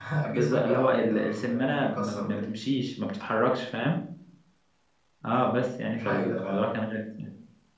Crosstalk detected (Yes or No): Yes